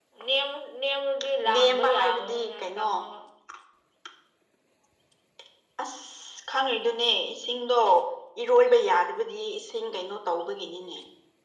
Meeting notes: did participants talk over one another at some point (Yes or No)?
Yes